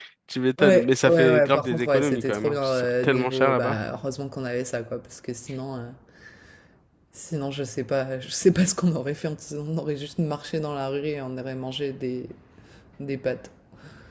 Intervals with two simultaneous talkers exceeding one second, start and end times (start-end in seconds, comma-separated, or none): 0.6-3.8